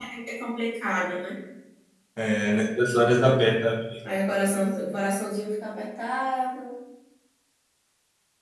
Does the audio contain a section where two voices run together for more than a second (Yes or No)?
No